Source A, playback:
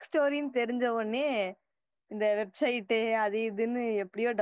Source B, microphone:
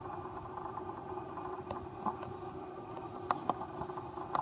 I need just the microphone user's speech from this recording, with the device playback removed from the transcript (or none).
none